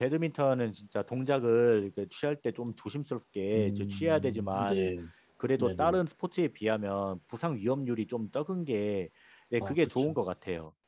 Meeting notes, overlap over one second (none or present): present